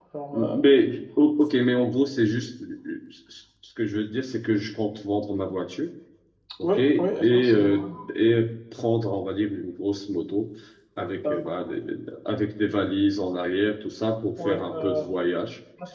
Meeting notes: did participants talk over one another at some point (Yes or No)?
Yes